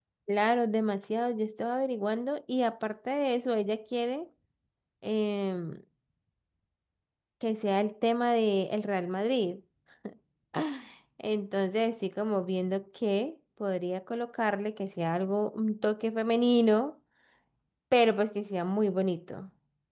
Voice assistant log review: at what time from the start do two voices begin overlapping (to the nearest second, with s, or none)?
none